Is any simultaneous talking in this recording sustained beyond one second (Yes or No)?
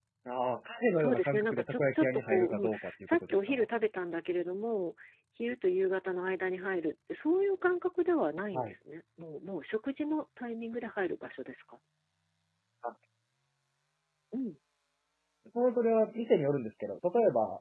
Yes